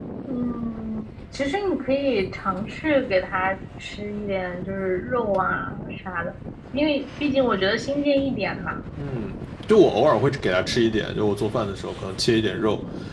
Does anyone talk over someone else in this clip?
No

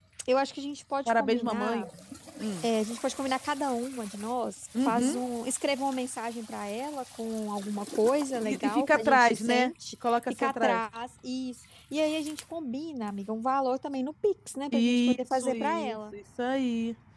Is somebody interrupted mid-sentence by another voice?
Yes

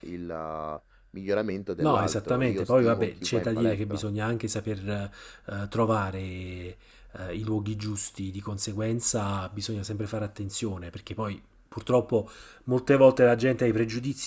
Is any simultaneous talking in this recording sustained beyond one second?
Yes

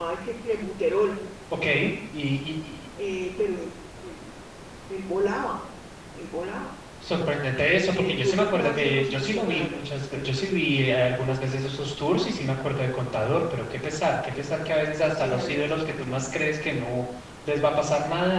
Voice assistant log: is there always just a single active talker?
No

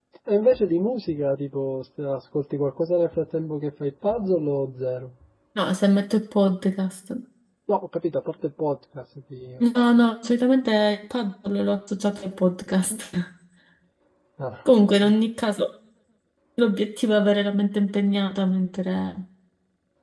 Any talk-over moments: No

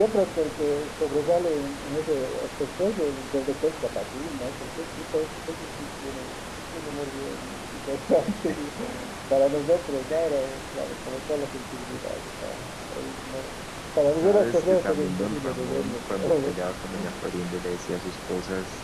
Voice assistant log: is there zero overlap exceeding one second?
No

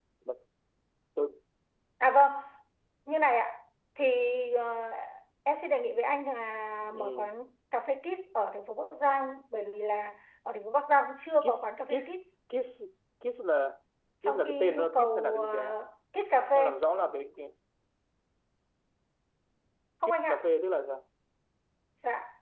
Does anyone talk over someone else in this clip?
Yes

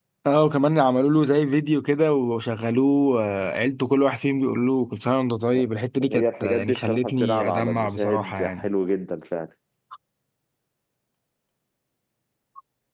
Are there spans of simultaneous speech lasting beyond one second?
Yes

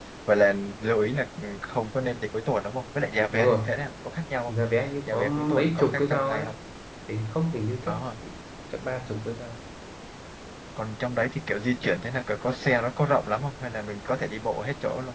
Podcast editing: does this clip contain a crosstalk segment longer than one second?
Yes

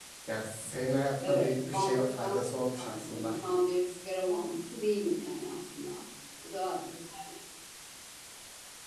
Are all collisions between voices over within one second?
No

